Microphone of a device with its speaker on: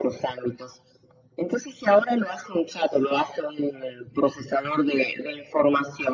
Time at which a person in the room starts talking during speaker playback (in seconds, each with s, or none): none